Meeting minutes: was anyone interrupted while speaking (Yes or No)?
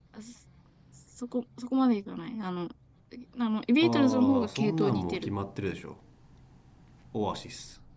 Yes